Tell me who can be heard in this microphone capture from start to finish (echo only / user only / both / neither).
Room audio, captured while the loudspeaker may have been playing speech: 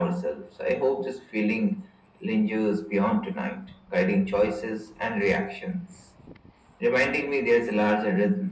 echo only